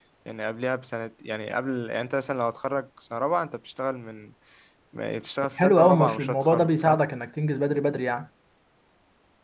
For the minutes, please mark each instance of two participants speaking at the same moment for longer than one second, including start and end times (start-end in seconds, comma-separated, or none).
5.6-7.0